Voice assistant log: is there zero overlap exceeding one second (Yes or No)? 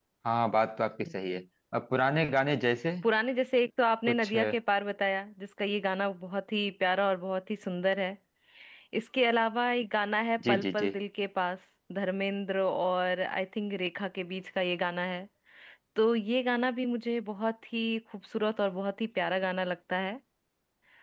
Yes